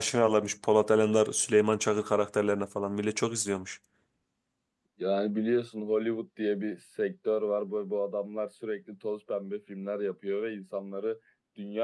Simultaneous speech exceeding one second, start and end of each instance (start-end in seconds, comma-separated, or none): none